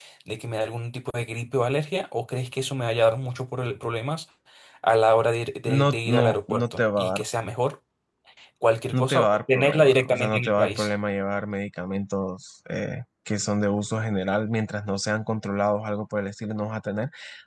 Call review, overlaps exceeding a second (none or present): present